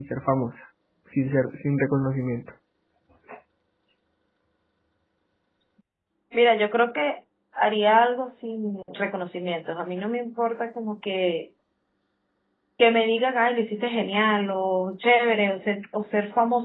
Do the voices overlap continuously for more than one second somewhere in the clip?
No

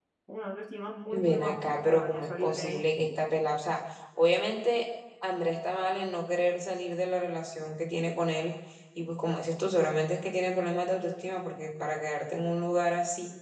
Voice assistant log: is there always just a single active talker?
No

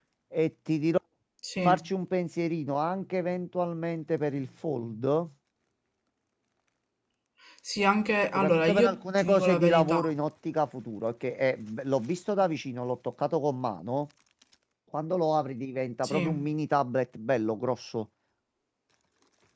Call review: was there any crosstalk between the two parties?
Yes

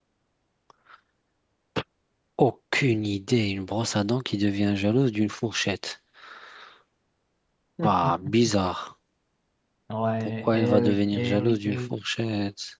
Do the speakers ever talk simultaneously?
Yes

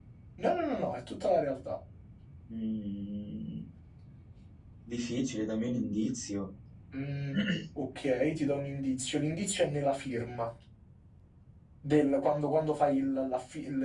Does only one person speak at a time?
Yes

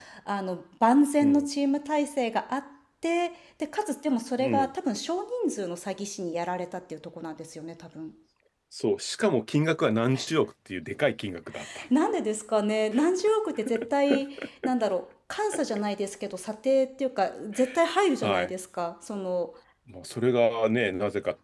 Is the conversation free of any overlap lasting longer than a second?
Yes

